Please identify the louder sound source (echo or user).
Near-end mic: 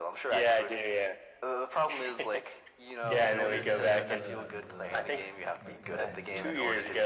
echo